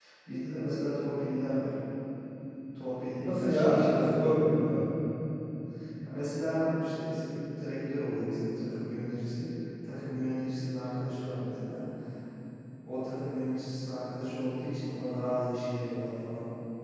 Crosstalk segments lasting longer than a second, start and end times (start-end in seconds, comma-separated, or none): 3.2-4.5